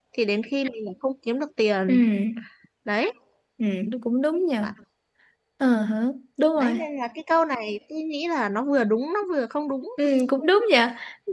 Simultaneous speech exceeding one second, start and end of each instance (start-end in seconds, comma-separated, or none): none